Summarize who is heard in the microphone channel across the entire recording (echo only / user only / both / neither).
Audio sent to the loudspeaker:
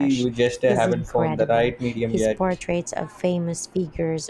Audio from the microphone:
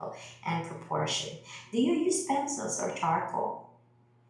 user only